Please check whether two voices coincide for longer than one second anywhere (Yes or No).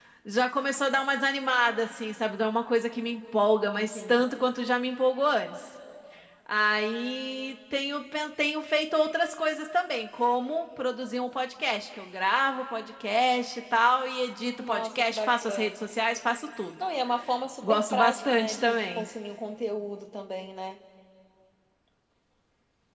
Yes